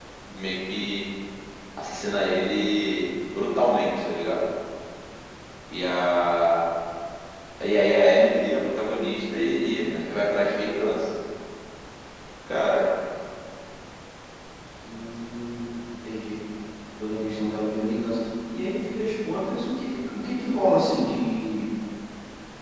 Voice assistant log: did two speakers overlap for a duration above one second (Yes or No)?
No